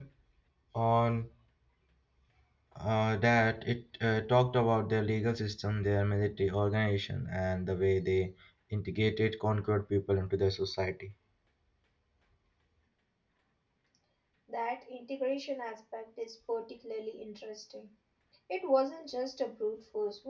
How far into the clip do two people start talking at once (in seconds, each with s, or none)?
none